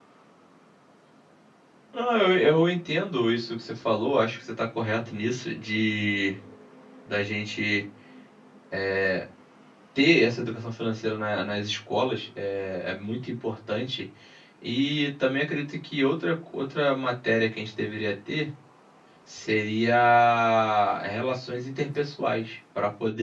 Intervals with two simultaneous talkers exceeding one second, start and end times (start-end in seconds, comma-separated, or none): none